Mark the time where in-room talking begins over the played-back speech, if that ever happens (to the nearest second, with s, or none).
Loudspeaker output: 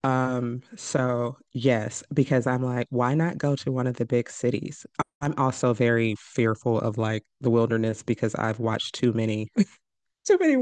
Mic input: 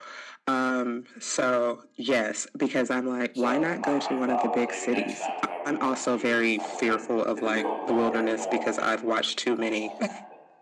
3 s